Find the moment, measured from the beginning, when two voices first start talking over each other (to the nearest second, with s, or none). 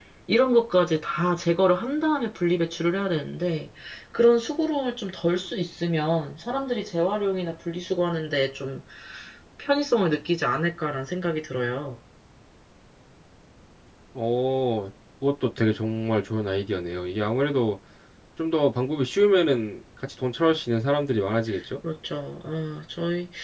none